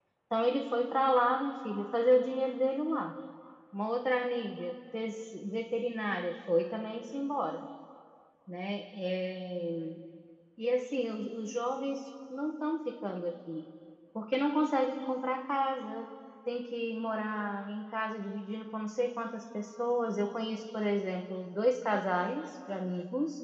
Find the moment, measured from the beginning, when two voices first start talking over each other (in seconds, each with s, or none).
none